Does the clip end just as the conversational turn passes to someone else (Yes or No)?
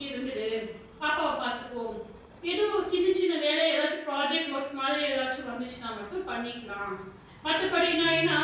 No